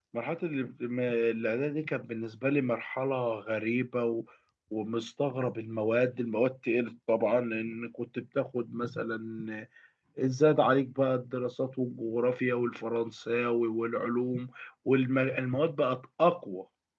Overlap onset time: none

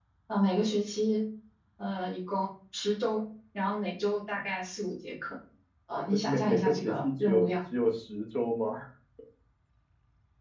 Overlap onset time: 6.0 s

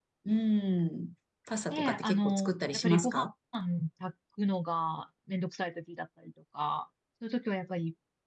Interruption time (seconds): 1.7 s

